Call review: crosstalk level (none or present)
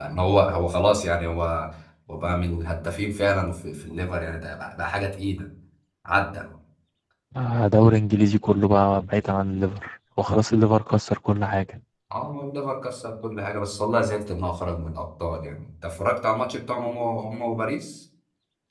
none